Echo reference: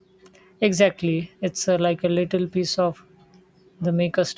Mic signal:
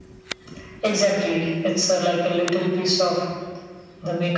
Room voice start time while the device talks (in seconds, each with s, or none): none